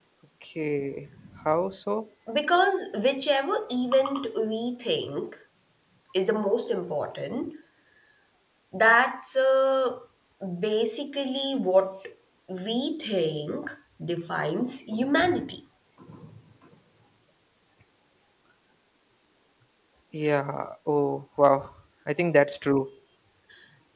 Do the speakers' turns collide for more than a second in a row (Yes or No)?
No